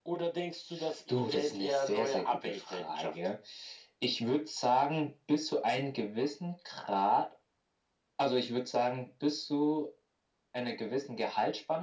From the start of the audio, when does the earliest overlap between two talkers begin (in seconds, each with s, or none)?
1.1 s